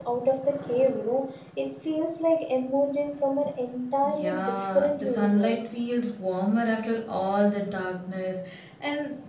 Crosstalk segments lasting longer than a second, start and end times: 4.0-5.7

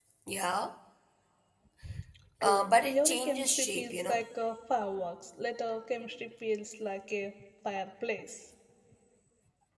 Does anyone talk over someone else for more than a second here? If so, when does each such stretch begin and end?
2.4-4.2

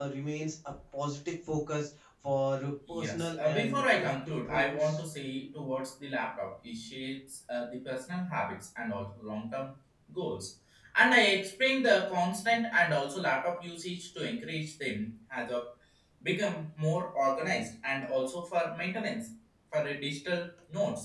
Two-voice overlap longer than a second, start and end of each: 2.9-5.0

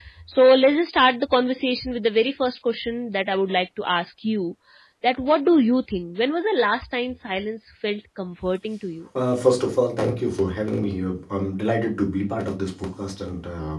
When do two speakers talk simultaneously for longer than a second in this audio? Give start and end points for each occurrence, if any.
none

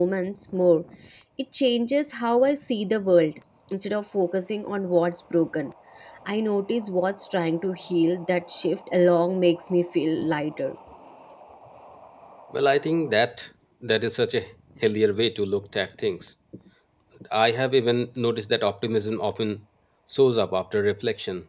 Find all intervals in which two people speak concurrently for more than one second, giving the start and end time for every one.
none

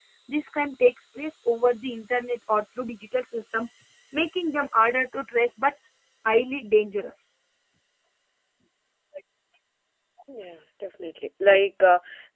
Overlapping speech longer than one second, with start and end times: none

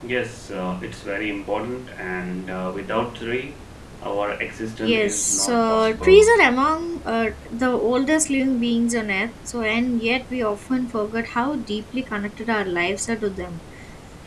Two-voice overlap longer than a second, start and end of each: 4.8-6.3

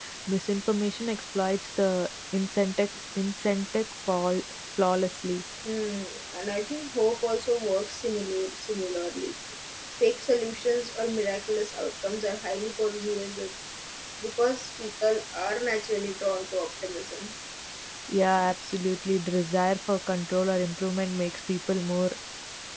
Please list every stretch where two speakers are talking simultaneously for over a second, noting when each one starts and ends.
none

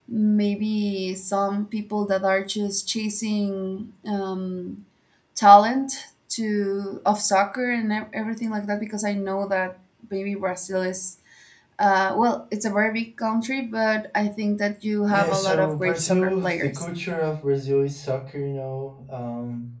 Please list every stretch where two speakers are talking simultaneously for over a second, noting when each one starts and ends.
15.1-16.8

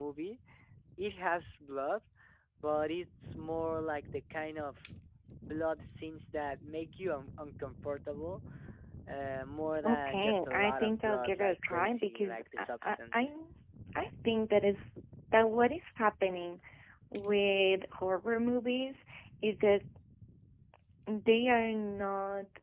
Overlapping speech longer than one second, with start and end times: 9.8-13.3

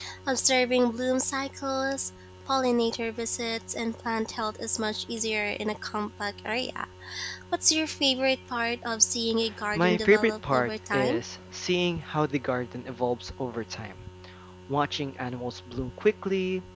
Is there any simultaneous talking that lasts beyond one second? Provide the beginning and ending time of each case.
9.7-11.2

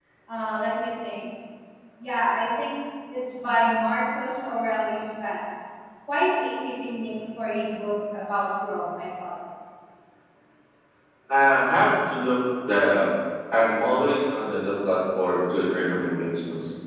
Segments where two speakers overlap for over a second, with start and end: none

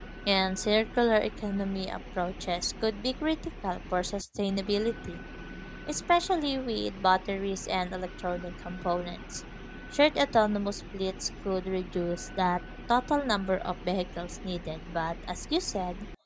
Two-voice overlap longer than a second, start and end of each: none

